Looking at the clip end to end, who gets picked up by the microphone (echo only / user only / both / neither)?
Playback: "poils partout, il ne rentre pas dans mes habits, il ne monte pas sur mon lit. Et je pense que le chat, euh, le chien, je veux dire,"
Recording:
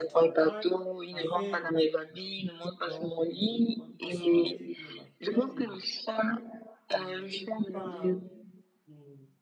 both